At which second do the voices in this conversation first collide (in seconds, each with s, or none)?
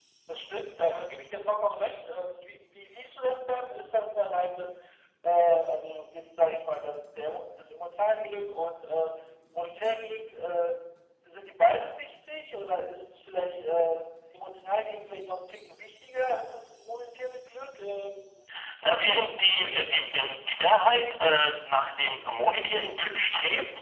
18.9 s